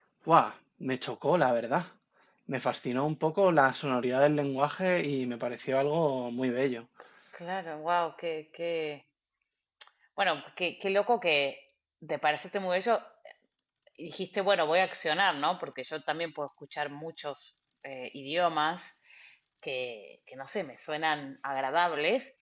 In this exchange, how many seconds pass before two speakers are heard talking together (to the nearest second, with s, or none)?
none